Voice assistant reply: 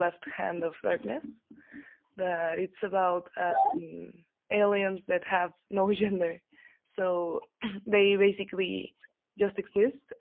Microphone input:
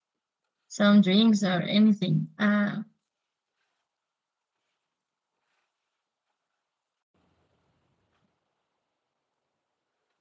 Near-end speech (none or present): present